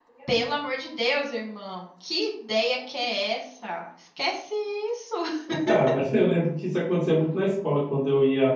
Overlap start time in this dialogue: none

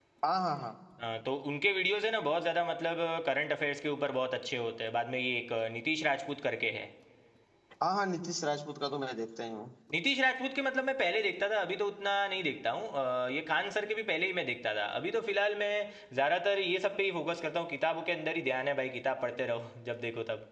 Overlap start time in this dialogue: none

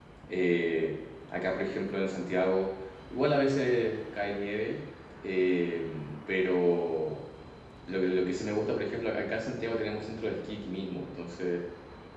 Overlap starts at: none

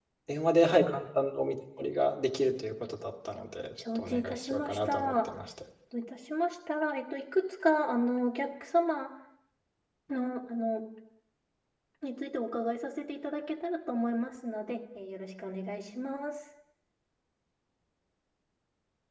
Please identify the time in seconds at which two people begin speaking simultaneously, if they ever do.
4 s

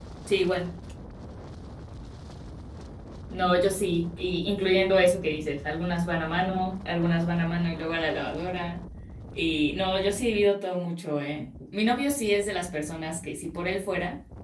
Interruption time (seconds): none

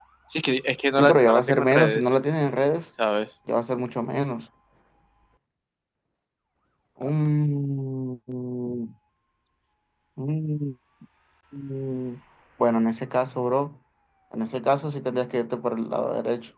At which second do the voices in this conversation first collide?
1 s

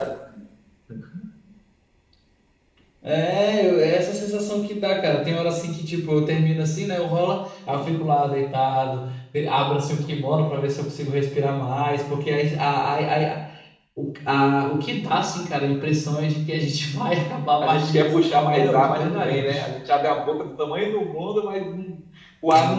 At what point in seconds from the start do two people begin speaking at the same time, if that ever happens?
18 s

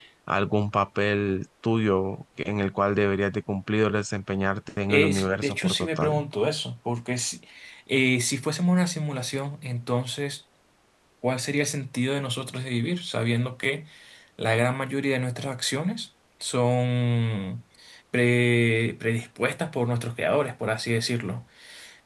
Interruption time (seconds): 5 s

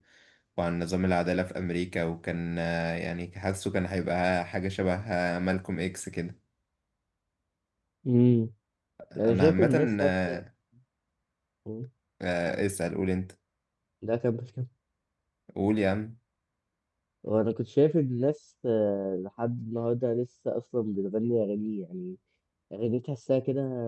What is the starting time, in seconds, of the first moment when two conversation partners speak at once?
9 s

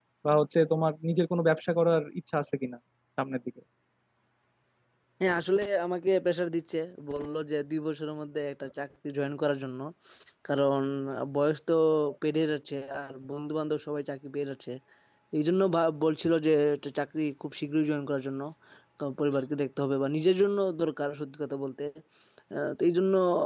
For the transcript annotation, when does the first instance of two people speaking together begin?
none

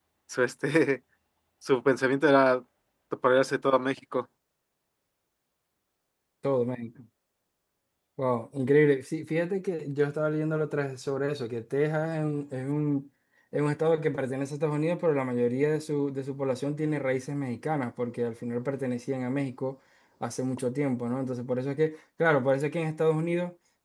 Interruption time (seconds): none

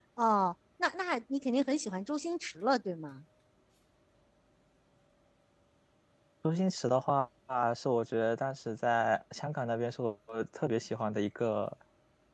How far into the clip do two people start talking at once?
none

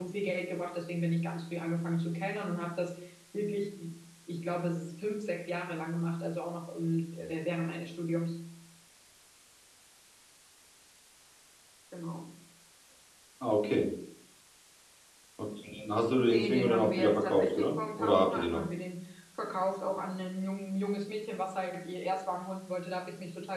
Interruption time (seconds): 16 s

